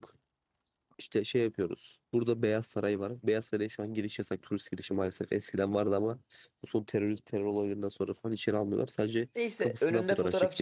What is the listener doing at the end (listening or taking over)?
taking over